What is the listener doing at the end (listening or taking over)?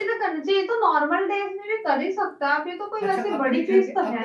taking over